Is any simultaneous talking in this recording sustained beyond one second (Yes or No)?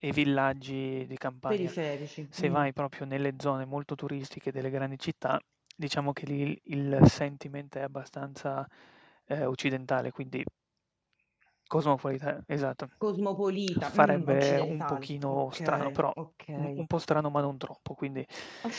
Yes